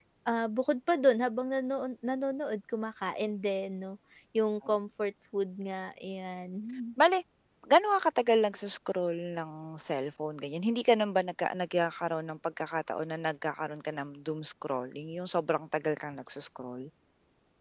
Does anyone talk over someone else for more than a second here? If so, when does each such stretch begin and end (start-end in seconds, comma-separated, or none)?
none